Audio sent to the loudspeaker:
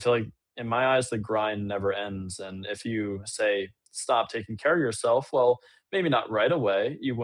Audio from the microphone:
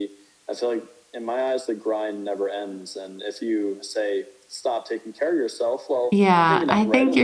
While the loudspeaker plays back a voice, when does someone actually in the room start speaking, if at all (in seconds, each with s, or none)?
6.1 s